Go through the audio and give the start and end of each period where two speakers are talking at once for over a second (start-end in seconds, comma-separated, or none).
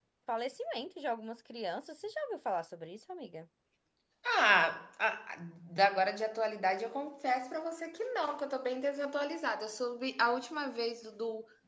none